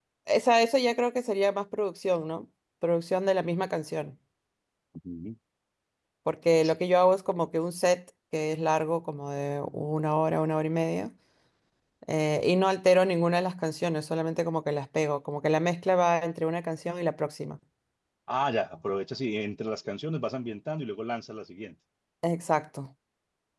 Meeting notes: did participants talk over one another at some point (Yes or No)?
No